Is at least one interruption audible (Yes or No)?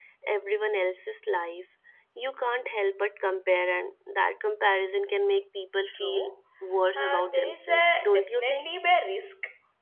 Yes